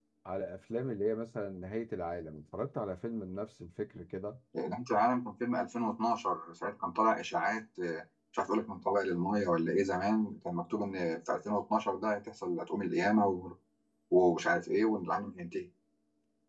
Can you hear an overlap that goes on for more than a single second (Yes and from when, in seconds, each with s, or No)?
No